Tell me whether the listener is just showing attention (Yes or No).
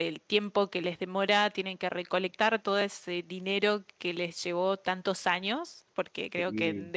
Yes